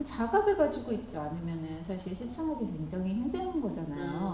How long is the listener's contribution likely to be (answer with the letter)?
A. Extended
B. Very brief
A